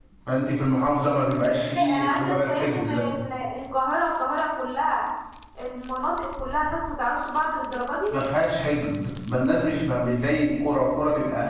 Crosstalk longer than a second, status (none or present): present